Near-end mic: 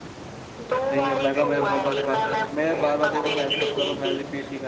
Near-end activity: present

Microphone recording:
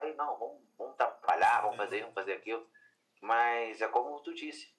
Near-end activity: present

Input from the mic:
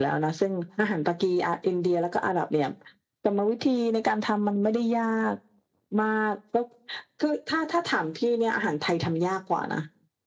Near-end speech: none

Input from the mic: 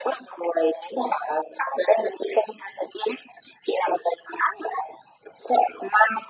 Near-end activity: none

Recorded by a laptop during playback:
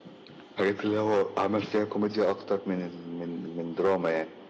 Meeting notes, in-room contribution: none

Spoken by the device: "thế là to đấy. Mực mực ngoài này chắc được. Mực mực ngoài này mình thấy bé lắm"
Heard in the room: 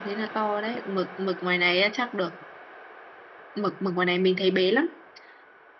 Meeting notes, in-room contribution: none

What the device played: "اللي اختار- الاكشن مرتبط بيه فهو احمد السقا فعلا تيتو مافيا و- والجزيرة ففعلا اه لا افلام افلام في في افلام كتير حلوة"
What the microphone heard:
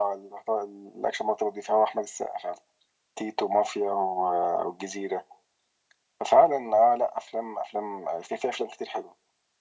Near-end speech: none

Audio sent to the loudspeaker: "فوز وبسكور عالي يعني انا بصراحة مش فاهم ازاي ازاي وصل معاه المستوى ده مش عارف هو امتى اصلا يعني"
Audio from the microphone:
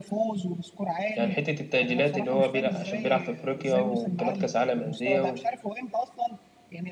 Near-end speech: present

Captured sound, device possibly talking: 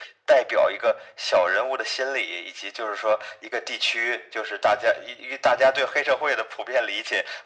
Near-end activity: none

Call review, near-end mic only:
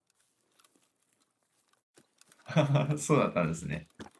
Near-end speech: present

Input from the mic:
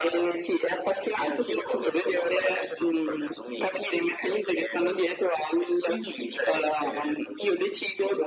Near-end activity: none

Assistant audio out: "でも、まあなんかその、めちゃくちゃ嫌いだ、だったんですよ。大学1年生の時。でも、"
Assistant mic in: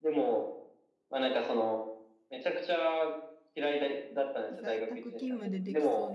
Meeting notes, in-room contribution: present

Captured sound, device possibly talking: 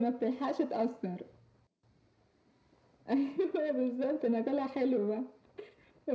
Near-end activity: none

